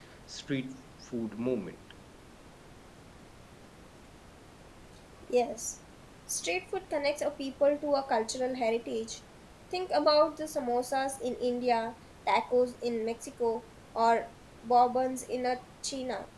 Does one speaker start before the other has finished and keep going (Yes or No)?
No